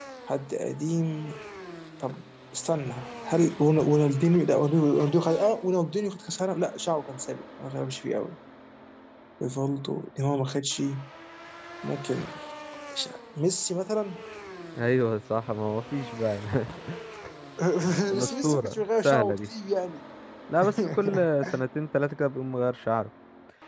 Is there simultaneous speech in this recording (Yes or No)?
Yes